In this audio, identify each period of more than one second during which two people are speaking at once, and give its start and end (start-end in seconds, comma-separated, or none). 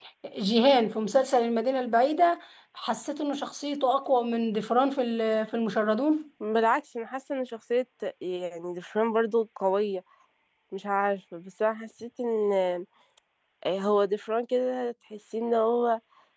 none